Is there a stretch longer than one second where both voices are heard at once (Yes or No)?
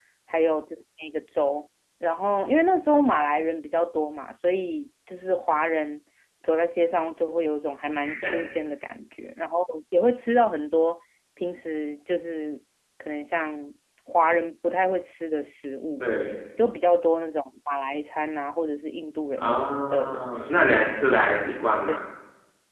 Yes